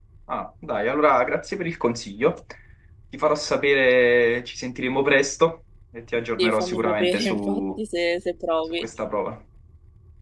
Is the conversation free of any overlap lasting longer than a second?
No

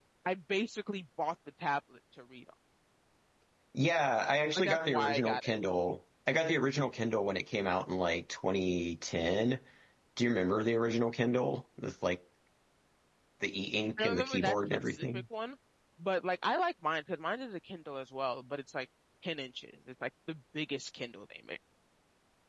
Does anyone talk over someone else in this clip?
Yes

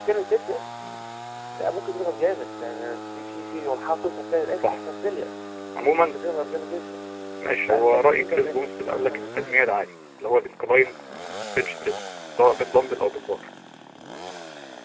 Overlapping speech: Yes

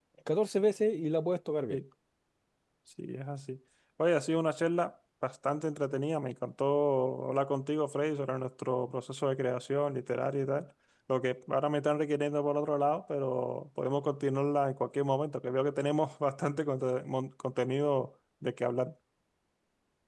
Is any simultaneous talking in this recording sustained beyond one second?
No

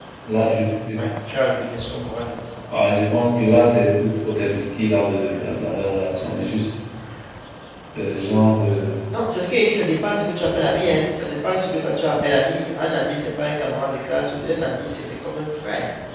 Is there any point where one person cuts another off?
No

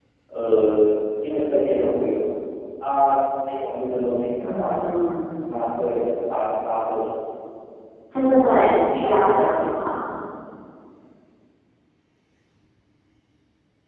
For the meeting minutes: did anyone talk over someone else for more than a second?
Yes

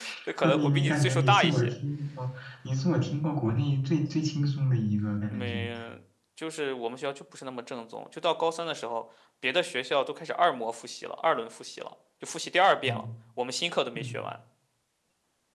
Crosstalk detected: Yes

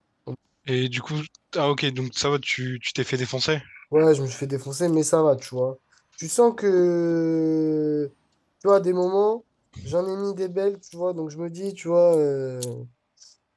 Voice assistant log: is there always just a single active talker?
Yes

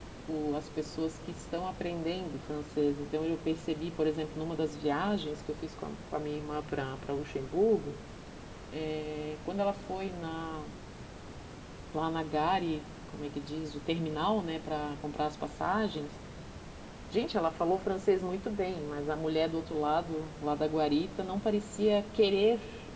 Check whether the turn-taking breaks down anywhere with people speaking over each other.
No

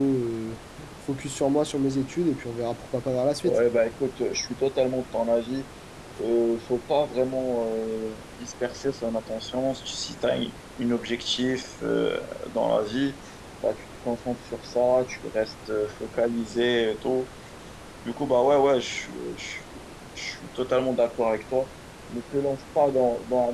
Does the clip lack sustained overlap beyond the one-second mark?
Yes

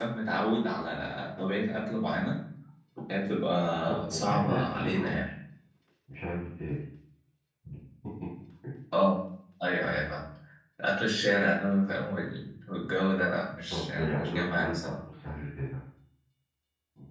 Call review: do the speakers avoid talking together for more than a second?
No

